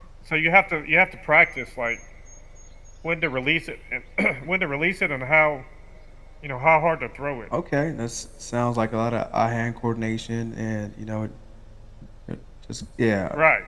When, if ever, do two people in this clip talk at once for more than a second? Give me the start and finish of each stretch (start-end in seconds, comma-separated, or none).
none